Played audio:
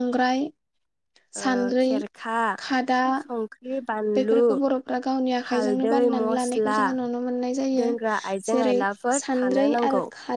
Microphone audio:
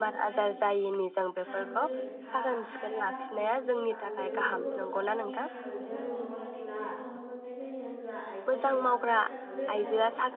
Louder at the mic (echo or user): user